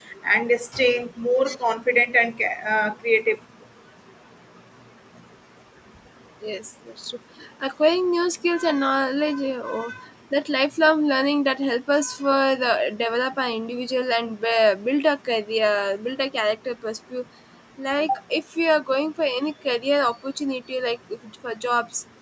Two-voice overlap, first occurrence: none

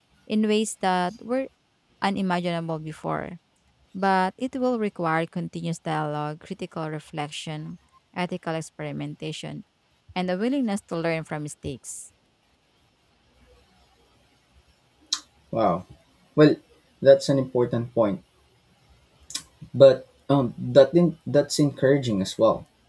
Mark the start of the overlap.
none

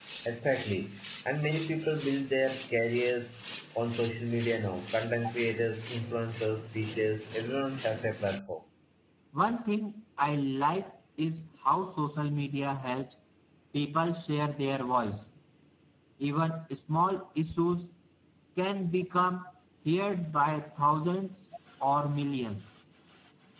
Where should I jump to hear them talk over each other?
none

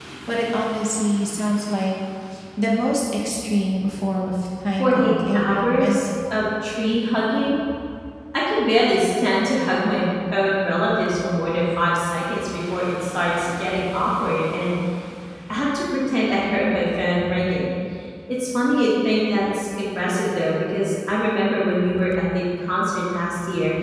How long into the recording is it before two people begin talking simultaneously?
4.8 s

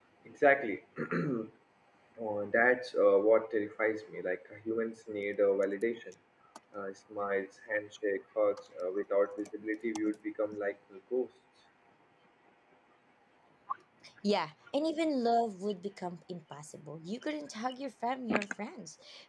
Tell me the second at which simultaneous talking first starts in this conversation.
none

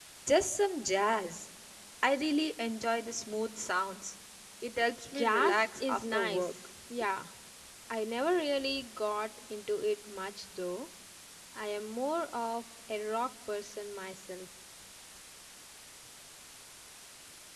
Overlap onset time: 5.1 s

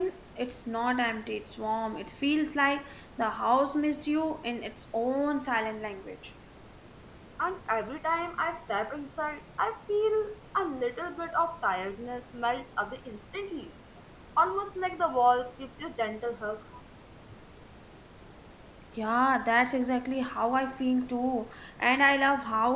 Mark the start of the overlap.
none

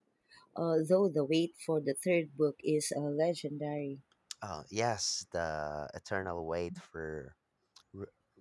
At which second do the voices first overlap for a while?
none

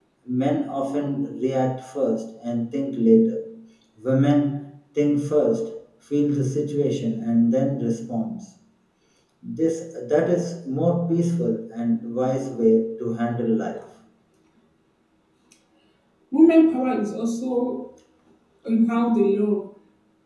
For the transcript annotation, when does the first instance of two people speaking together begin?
none

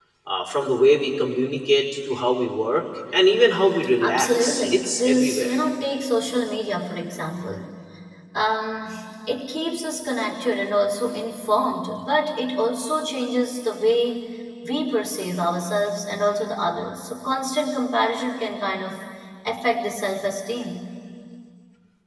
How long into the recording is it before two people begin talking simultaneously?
4.0 s

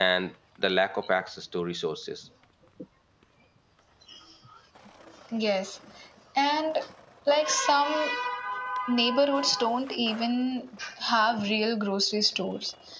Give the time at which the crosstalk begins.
none

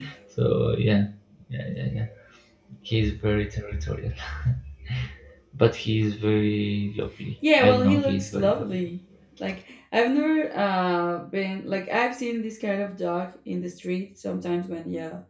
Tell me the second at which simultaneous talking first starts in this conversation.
7.4 s

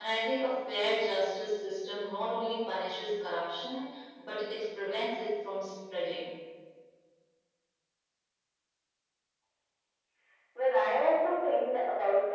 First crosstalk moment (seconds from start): none

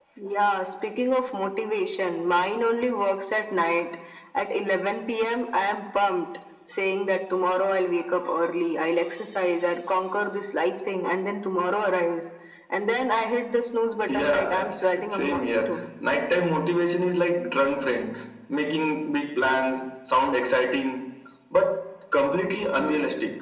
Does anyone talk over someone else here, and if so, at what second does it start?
14.1 s

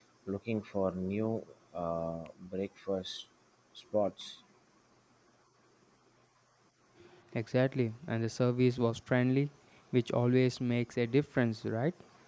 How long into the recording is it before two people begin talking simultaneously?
none

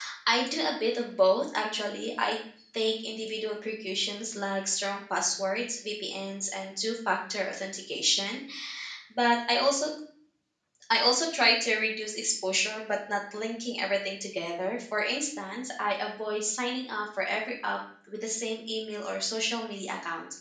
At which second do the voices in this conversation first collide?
none

